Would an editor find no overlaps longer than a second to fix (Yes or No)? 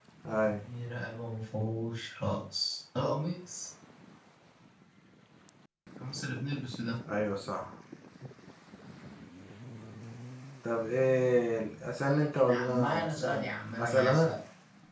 No